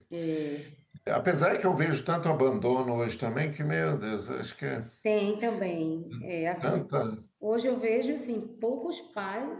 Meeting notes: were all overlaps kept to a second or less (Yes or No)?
Yes